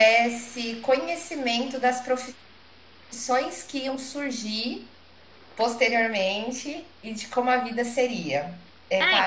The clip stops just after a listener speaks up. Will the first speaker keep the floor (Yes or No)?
No